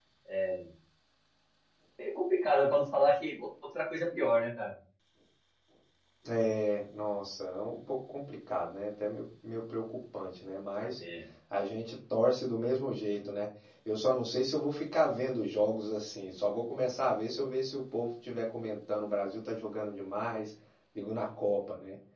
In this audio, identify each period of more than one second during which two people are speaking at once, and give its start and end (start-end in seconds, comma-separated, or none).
none